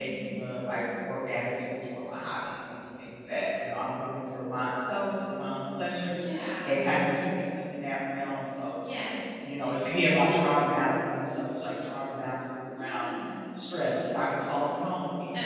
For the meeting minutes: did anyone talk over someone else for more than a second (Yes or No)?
No